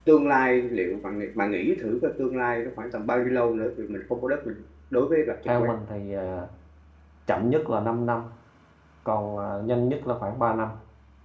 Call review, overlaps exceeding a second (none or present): none